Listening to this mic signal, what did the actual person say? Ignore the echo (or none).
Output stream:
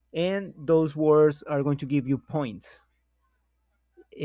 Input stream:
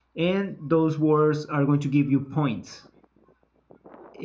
none